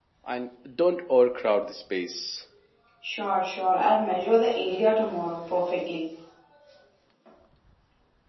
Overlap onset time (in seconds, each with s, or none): none